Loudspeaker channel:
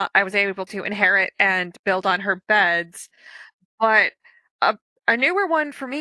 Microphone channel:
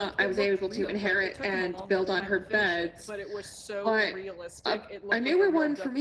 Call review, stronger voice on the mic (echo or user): echo